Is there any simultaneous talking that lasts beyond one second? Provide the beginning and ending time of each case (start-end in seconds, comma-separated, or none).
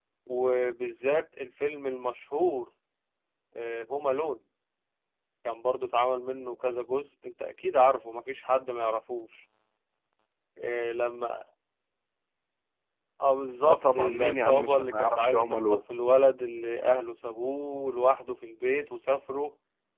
13.6-15.8